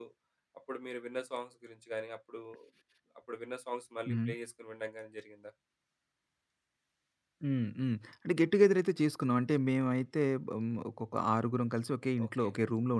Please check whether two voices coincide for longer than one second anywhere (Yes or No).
No